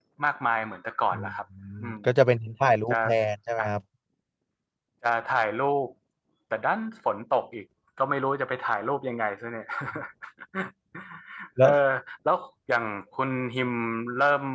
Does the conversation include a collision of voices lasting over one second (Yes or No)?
No